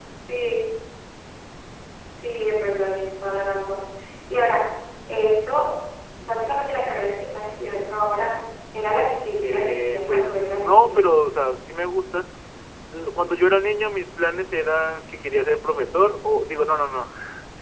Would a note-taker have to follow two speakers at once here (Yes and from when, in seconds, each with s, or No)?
Yes, from 9.4 s